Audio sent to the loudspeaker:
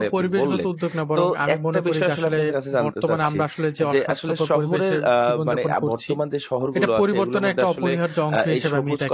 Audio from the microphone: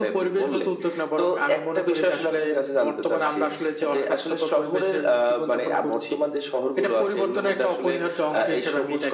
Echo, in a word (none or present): present